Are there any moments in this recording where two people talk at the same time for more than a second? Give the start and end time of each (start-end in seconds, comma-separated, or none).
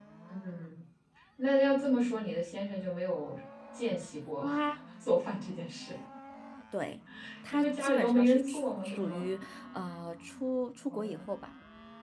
7.5-9.3